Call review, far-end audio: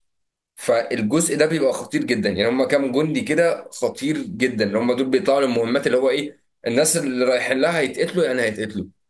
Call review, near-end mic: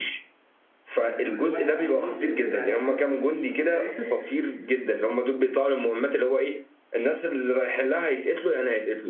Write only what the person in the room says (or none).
ما أنت كل واحد بيموت بينزل عليه فلوس أنت متخيل؟